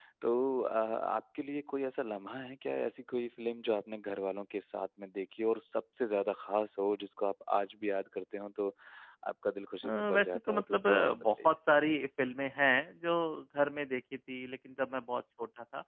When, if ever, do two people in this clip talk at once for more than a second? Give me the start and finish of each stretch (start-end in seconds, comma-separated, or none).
9.8-11.5